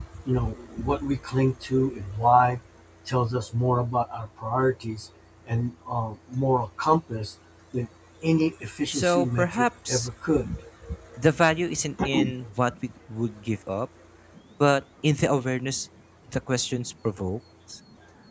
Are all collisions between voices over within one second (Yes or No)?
No